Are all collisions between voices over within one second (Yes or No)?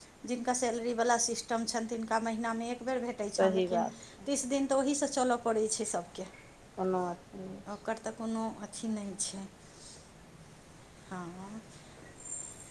Yes